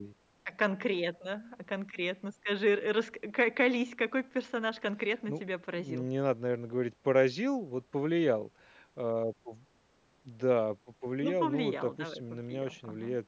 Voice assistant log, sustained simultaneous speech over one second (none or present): present